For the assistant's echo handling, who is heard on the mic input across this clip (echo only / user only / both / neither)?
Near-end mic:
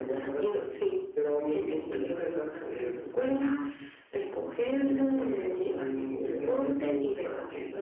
echo only